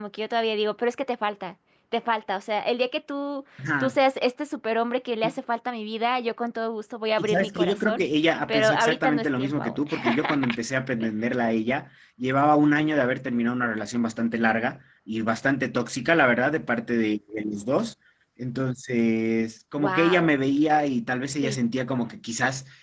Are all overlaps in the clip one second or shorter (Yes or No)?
No